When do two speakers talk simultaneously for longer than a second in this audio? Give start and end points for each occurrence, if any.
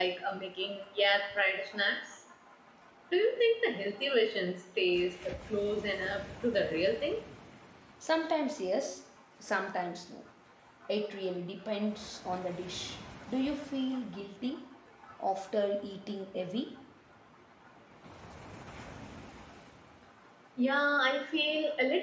none

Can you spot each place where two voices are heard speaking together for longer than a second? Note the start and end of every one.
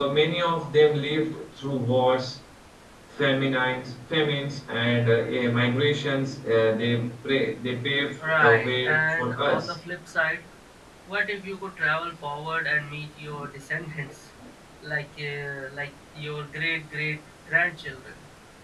8.4-9.7

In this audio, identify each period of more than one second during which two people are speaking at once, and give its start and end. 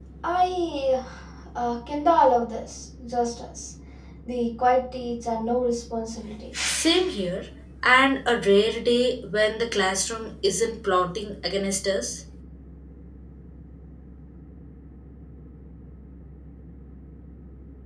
none

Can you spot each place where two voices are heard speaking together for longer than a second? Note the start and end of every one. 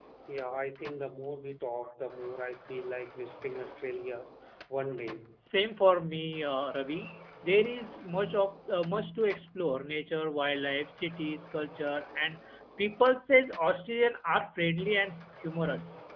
none

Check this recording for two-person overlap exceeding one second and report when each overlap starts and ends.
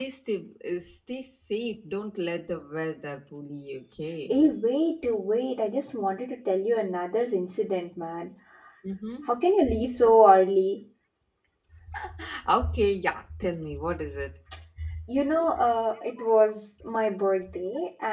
none

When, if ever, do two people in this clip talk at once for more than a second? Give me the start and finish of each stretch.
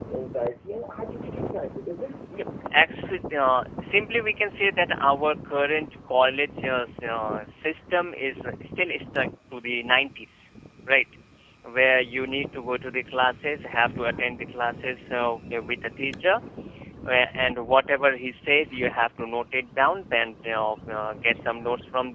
none

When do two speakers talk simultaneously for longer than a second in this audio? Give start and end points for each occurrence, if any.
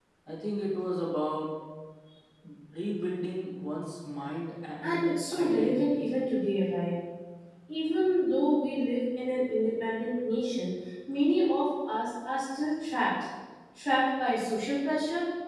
4.8-6.1

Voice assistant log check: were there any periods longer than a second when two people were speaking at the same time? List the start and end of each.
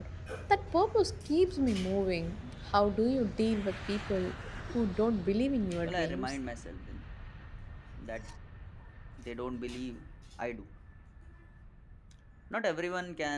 none

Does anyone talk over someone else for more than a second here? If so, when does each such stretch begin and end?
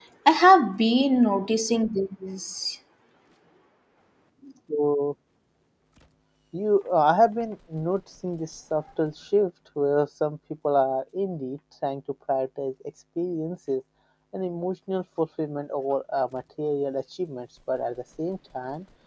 none

